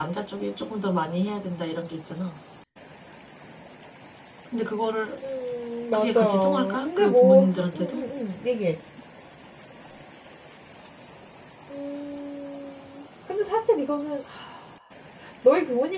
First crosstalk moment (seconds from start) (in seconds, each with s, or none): 5.9 s